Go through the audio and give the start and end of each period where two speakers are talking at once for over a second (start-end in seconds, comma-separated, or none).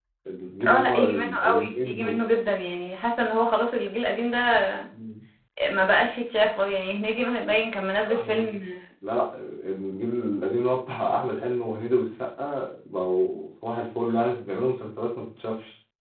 0.7-2.2